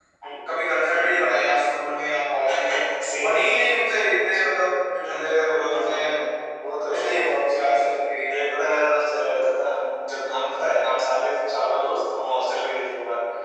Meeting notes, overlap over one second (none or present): none